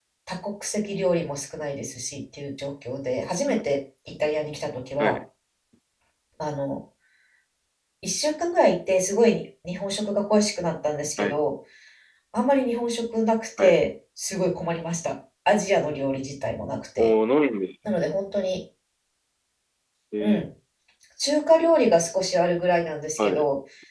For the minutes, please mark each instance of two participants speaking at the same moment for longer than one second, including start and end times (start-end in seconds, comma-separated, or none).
none